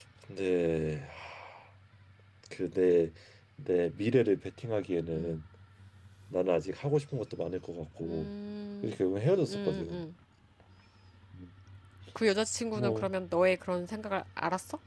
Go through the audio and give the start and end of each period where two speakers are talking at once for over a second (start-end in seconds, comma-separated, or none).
none